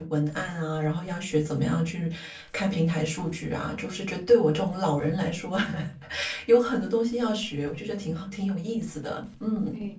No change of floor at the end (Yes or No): No